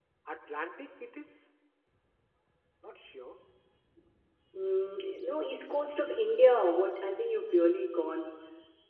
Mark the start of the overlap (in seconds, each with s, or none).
none